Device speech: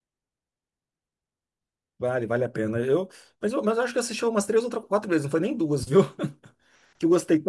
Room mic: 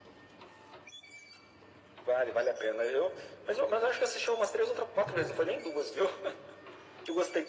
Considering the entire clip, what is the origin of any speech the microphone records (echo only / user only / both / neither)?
both